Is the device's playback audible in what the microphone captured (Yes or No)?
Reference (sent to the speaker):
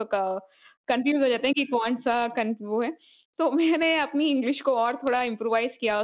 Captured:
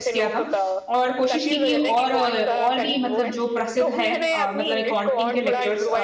Yes